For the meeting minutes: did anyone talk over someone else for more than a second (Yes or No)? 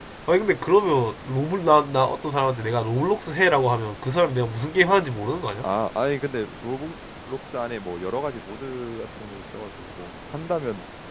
No